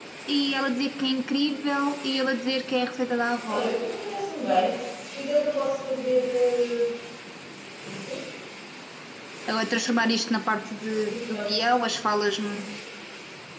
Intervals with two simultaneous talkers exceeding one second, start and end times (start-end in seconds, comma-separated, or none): none